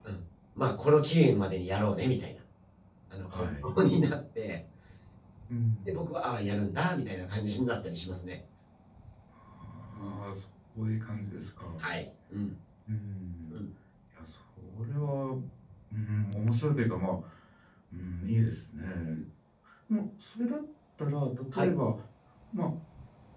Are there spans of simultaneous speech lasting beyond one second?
No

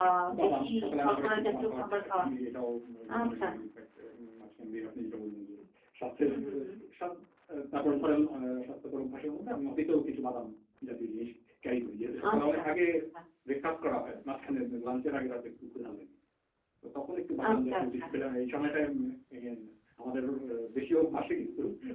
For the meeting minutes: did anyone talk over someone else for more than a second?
Yes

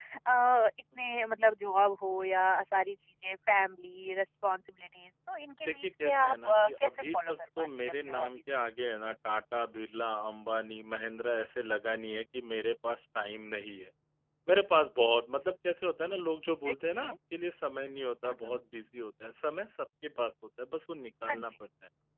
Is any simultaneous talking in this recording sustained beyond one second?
Yes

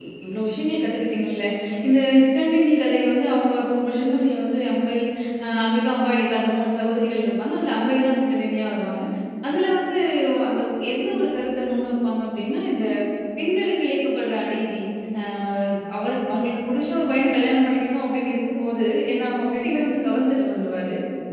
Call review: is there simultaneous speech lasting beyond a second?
No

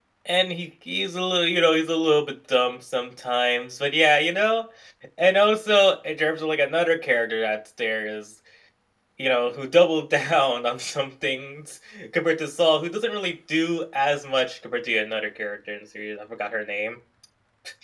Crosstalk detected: No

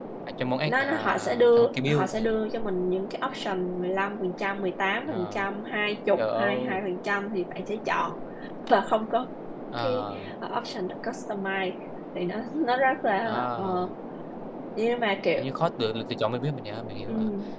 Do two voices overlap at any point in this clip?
Yes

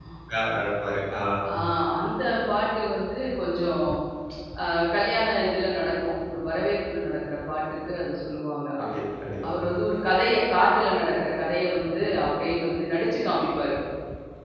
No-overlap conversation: Yes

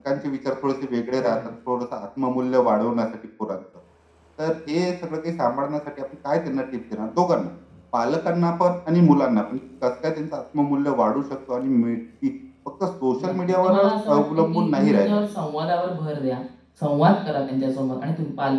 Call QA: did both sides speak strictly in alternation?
No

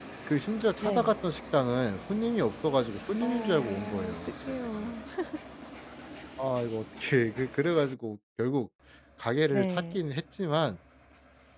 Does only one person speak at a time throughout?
No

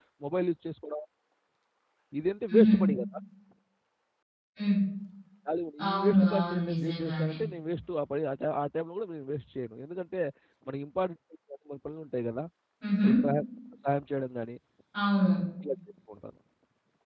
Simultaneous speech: Yes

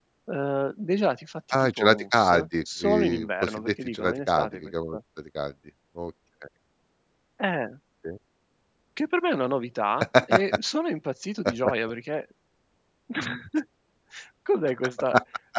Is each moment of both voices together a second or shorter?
No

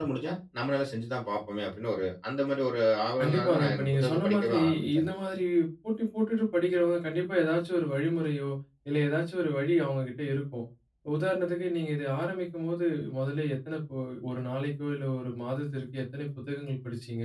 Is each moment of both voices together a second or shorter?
No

